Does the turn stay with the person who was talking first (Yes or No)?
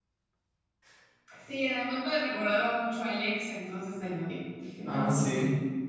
No